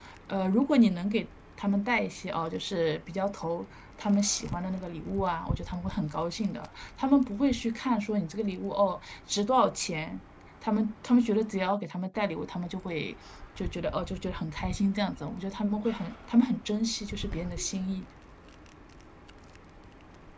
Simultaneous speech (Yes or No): No